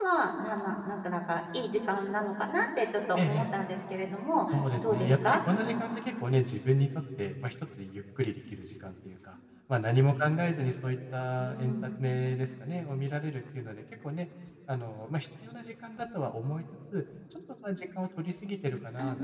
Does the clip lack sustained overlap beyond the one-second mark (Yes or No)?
No